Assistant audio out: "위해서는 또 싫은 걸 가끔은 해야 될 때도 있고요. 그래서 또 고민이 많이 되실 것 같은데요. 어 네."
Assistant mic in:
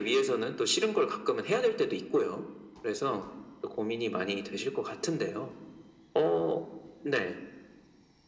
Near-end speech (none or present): none